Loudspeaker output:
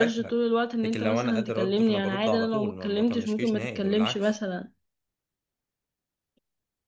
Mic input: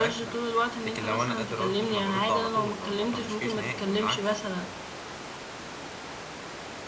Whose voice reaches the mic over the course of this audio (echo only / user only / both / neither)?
echo only